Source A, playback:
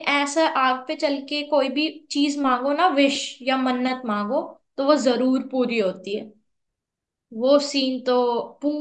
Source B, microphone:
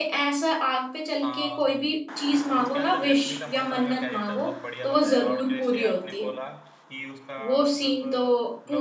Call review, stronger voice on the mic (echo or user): echo